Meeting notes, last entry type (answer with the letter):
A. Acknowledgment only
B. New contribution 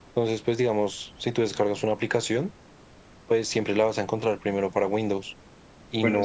A